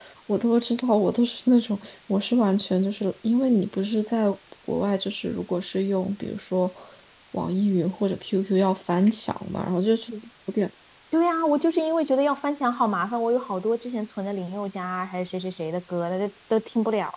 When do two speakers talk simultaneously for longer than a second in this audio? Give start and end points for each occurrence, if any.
none

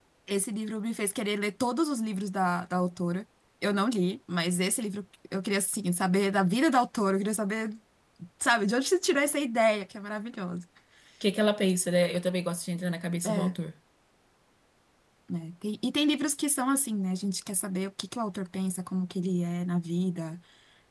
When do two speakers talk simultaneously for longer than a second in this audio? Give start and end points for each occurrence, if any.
none

